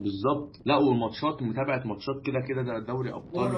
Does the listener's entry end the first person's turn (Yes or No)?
Yes